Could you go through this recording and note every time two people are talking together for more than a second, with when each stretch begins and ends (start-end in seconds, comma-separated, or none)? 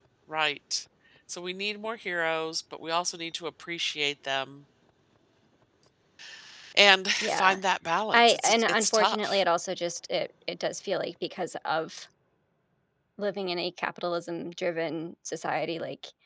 8.1-9.4